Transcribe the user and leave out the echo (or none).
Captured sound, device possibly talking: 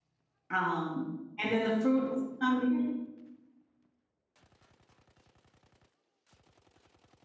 Um, and then the fruit is coming.